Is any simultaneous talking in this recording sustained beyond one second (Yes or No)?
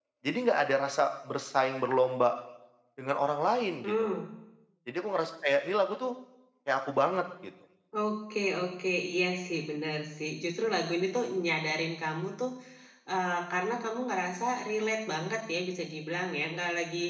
No